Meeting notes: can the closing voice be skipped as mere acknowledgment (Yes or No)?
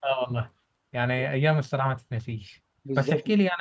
Yes